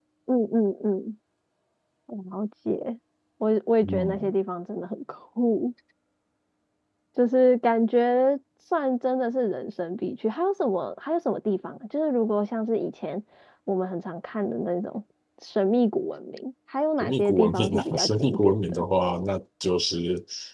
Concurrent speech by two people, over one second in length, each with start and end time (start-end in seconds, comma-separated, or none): 17.0-18.8